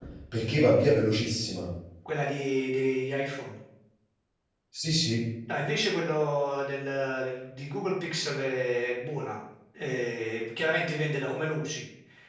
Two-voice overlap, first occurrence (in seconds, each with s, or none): none